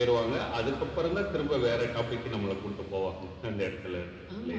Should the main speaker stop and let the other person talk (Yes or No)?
Yes